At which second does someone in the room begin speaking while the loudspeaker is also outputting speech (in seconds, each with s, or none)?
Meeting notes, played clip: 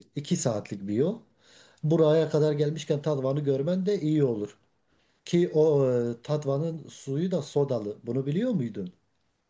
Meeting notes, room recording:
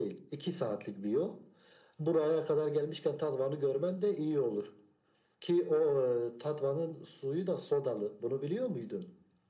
none